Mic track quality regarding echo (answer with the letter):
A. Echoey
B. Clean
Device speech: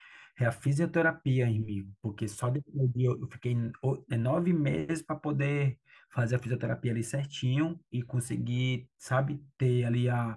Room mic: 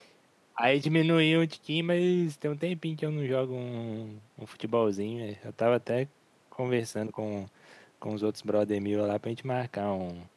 B